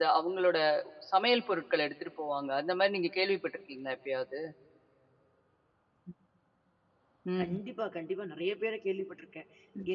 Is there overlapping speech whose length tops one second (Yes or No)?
No